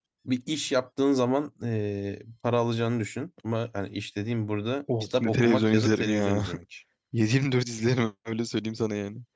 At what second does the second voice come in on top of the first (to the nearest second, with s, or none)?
5 s